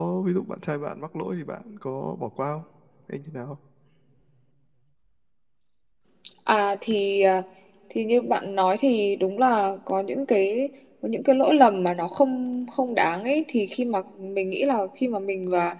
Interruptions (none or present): none